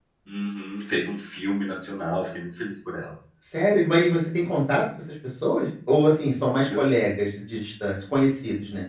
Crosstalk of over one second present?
No

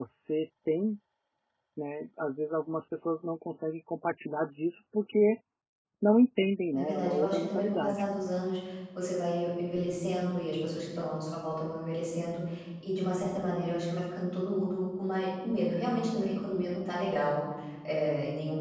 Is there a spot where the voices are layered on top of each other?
Yes, from 6.7 s

